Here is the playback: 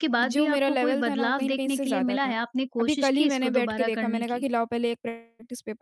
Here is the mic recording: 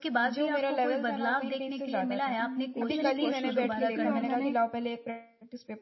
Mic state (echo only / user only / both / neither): both